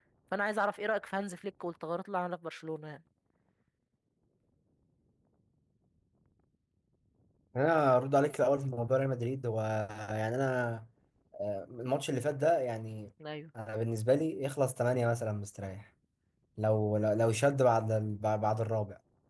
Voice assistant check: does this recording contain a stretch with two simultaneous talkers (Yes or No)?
No